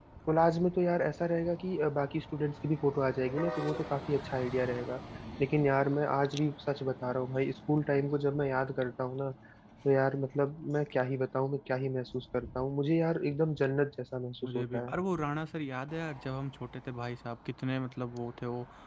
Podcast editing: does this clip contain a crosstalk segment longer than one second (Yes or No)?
No